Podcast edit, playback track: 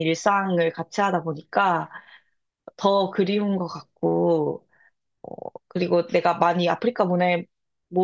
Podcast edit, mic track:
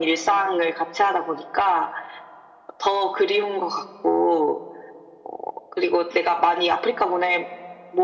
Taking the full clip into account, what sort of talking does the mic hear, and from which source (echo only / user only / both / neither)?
echo only